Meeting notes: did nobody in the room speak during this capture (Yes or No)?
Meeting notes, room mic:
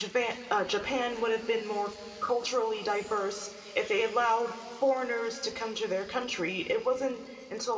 No